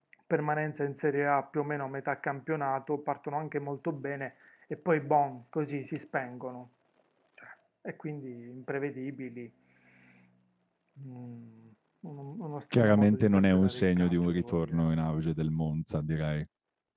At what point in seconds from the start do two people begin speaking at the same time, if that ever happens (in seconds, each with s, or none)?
12.7 s